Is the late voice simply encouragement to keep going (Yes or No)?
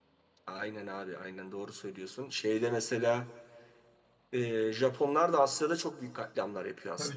No